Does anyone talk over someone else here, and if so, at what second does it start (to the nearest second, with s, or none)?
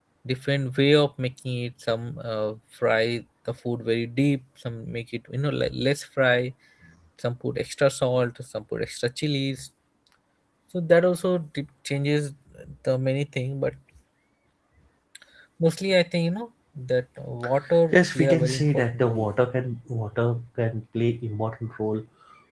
18 s